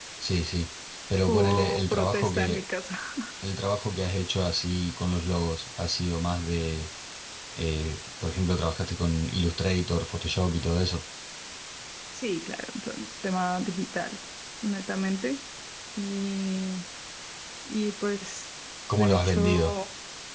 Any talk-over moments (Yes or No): Yes